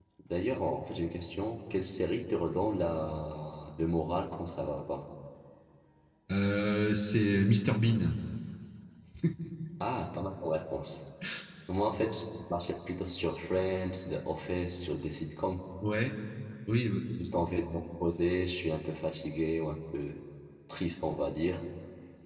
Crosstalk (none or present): none